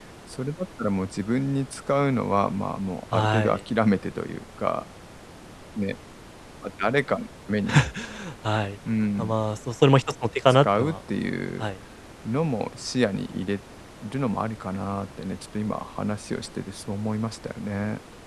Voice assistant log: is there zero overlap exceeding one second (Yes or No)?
Yes